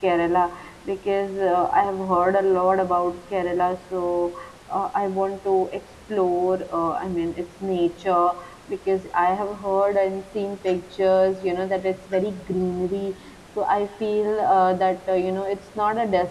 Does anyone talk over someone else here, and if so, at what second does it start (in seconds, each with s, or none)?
none